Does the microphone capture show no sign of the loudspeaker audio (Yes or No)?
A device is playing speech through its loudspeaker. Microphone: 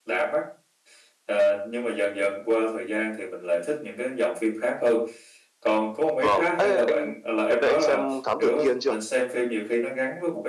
No